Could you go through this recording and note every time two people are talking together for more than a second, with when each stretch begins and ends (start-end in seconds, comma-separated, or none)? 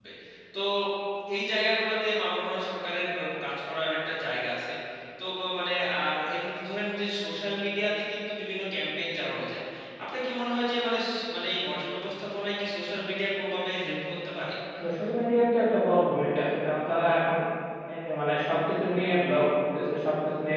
none